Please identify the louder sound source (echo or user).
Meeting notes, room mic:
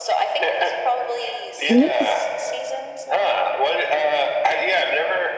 user